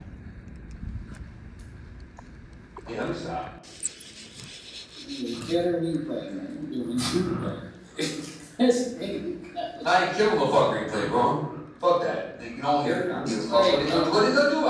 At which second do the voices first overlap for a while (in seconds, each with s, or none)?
12.8 s